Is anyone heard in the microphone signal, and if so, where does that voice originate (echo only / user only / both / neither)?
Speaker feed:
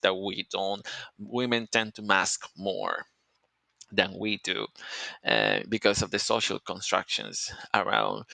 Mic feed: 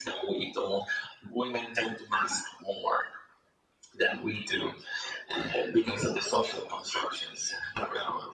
echo only